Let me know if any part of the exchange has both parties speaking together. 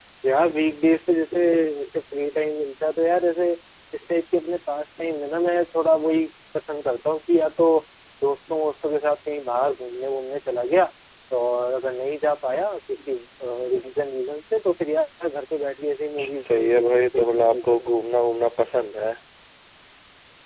Yes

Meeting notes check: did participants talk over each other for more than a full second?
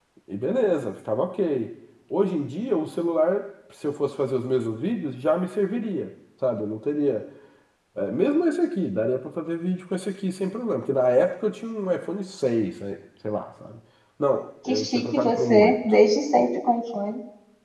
Yes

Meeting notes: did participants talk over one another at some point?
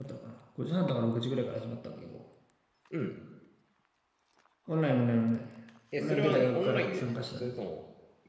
Yes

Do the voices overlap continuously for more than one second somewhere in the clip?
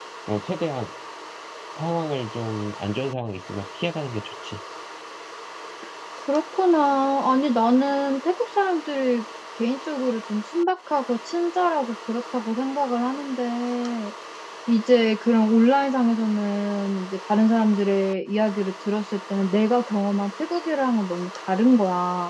No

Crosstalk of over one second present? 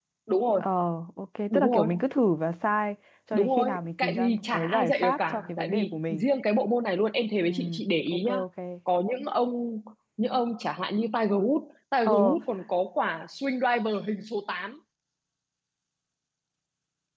Yes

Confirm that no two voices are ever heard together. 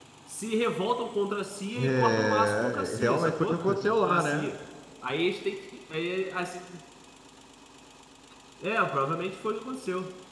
No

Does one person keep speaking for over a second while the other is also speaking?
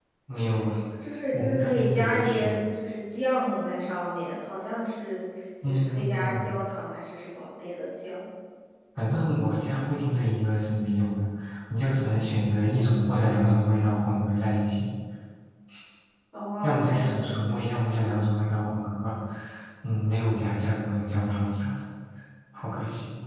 Yes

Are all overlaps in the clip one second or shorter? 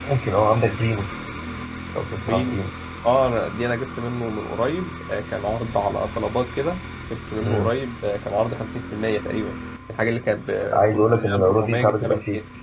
No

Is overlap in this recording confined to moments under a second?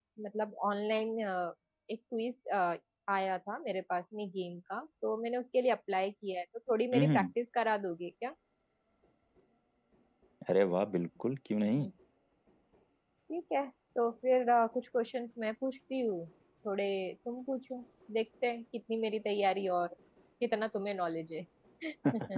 Yes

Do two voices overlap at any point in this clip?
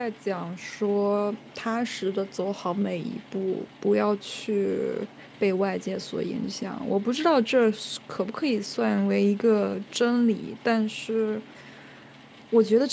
No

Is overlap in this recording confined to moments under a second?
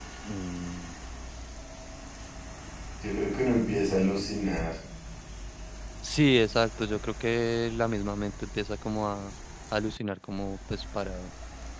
Yes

